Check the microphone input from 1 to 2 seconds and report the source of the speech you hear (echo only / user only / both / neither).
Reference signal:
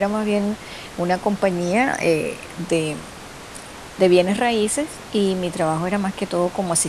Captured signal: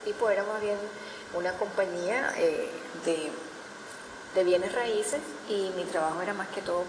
echo only